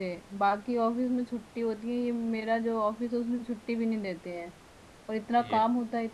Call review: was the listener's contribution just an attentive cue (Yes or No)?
Yes